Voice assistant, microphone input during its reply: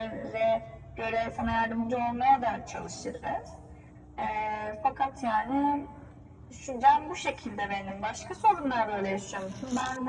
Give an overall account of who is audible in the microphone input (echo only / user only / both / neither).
echo only